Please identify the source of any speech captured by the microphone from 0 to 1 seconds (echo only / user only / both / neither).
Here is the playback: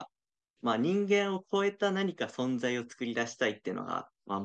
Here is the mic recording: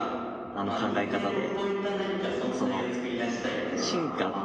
both